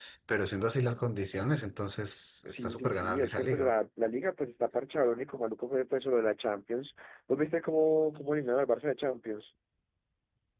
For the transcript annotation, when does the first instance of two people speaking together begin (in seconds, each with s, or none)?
2.5 s